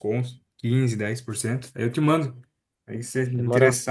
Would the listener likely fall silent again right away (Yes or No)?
No